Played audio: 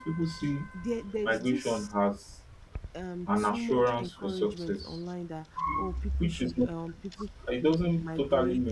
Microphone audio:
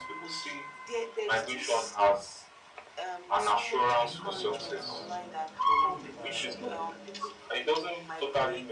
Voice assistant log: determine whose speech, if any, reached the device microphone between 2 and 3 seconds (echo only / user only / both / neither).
echo only